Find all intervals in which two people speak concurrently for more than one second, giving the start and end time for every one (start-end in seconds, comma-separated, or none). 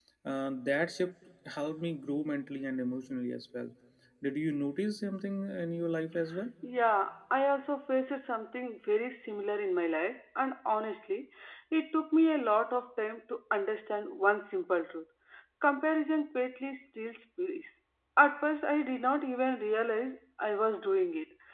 none